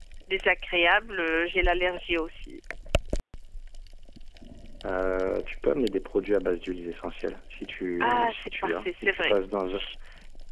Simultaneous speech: Yes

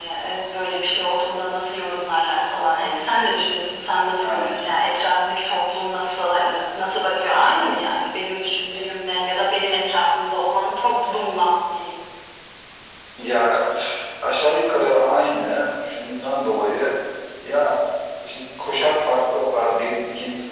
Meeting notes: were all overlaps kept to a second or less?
Yes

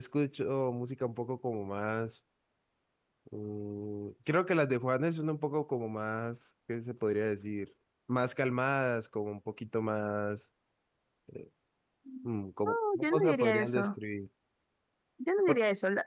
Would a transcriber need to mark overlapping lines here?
Yes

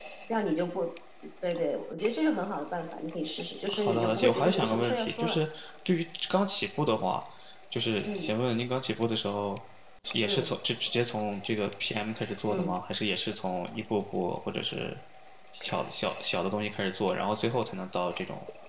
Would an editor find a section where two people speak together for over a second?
Yes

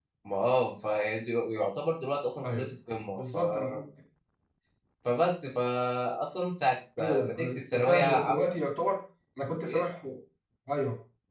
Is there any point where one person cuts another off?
Yes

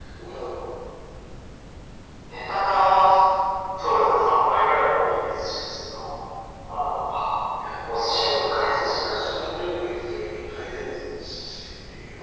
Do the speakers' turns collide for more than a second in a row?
Yes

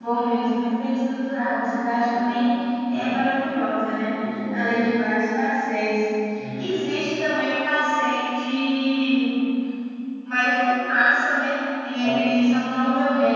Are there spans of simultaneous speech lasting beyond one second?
No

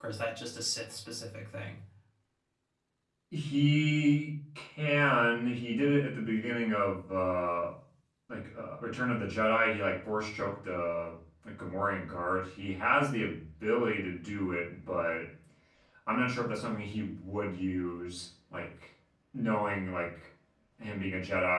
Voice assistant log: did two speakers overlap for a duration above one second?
No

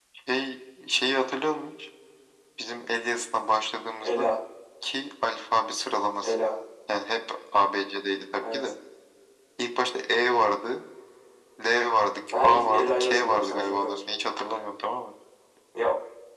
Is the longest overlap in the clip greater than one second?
Yes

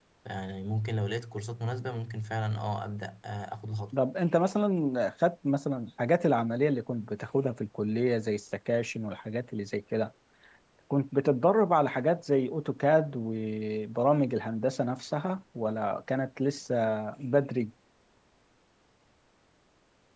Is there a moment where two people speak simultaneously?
No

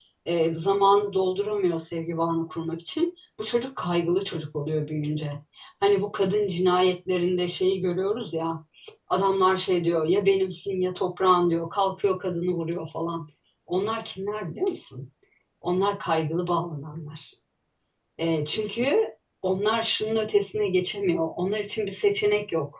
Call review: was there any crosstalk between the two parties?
No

